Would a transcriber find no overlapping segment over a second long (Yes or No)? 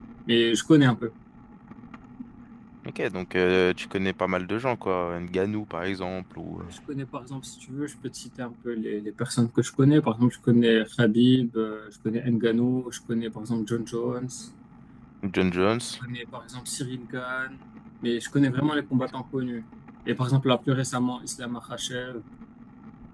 Yes